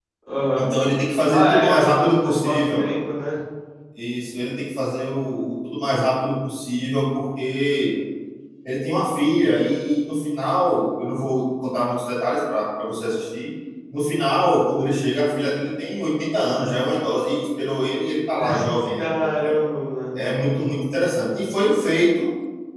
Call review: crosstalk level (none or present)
present